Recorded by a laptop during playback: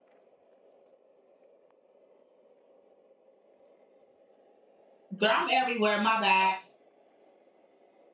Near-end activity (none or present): present